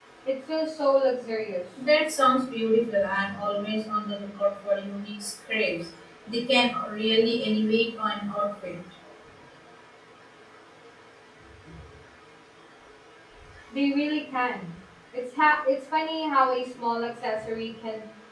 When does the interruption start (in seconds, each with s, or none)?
none